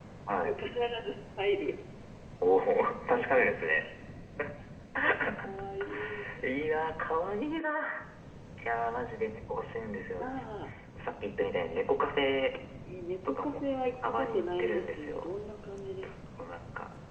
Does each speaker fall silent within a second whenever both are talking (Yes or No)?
No